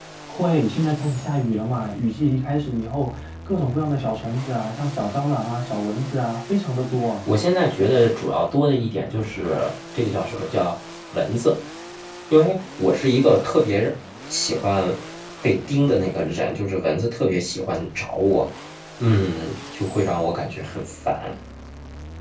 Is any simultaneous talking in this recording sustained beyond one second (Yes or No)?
No